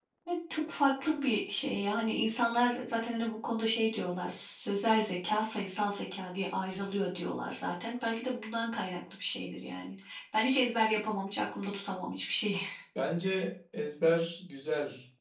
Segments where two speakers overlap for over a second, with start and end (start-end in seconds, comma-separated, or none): none